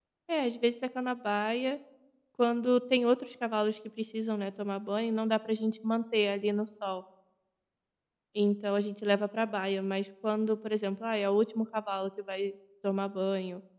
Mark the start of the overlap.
none

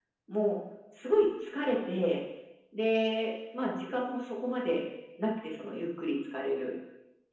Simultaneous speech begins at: none

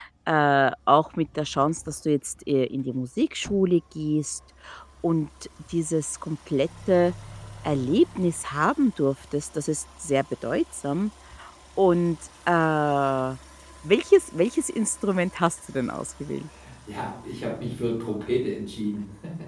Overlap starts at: none

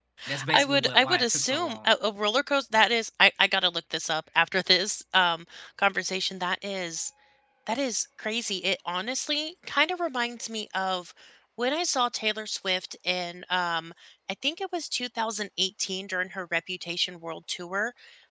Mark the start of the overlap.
0.5 s

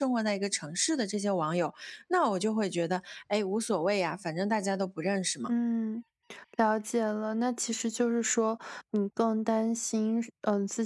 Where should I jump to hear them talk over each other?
none

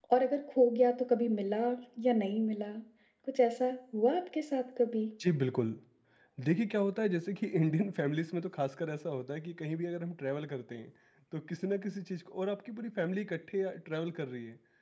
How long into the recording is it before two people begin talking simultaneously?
none

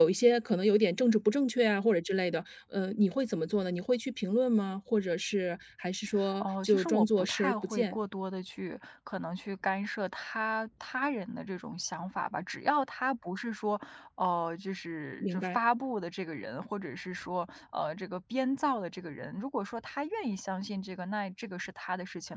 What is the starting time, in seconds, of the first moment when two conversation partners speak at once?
6.4 s

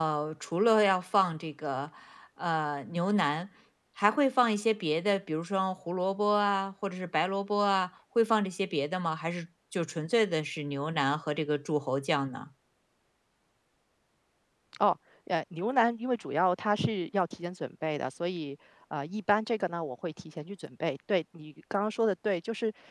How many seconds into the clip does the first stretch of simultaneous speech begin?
none

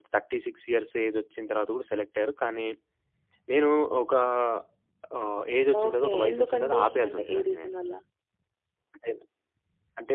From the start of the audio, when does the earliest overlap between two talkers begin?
5.8 s

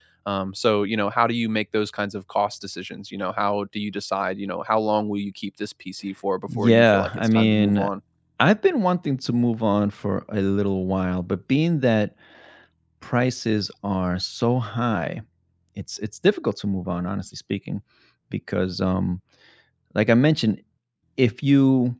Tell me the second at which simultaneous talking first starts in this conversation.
6.5 s

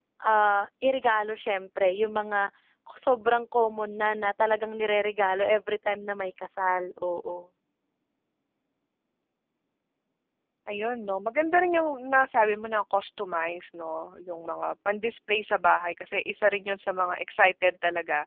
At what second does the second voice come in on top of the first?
none

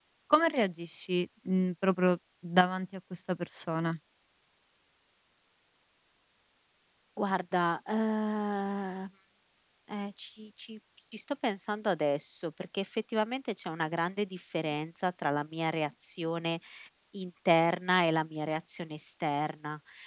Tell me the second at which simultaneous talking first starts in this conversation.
none

